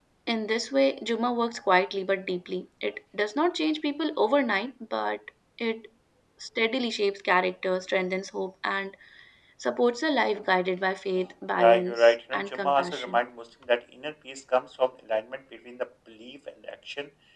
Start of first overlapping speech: 11.6 s

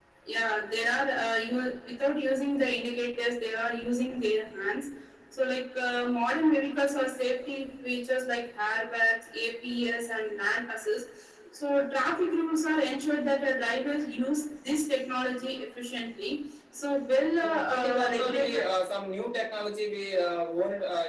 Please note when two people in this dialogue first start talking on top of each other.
17.4 s

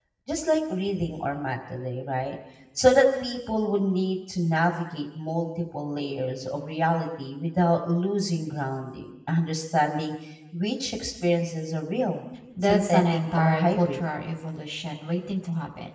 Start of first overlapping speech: 12.6 s

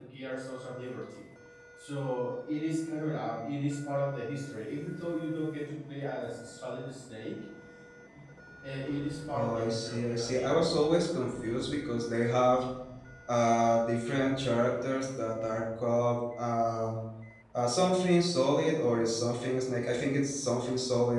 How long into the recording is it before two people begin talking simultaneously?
9.3 s

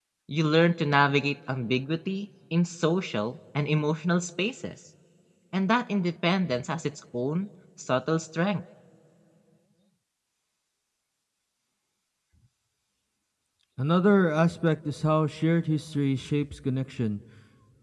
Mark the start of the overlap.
none

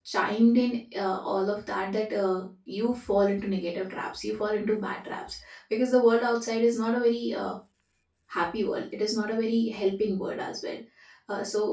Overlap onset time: none

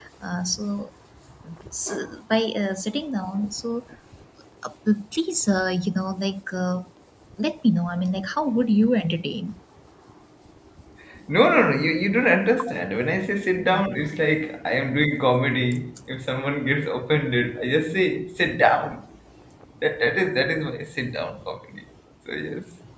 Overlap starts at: none

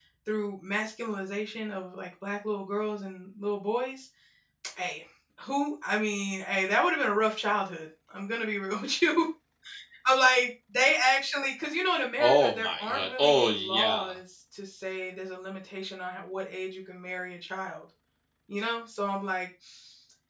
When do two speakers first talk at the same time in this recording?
12.2 s

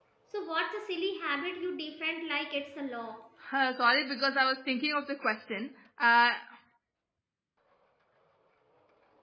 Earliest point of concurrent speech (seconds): none

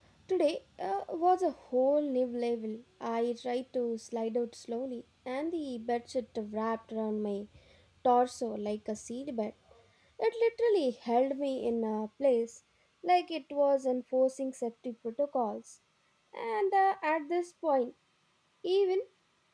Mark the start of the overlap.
none

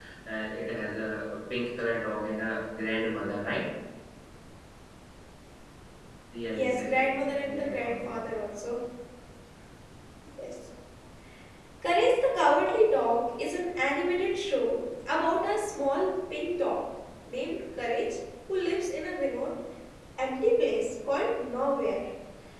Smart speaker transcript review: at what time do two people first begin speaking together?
6.5 s

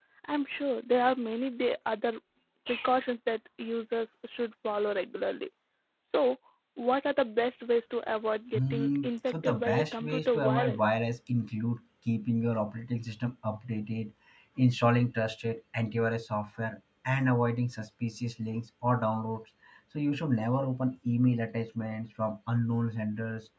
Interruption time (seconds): 8.5 s

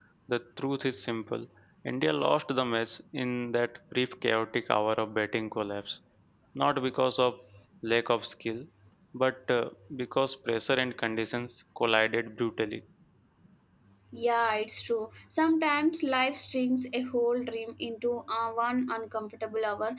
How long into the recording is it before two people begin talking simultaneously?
none

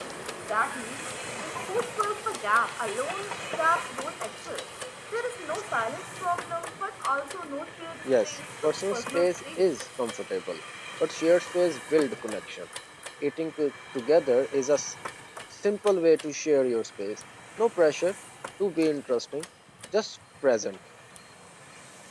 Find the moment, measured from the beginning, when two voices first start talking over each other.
8.1 s

